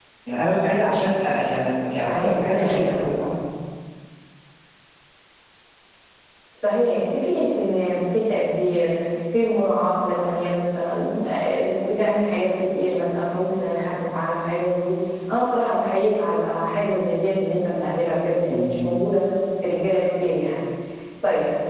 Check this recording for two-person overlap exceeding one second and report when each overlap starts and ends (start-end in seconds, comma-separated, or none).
1.9-3.2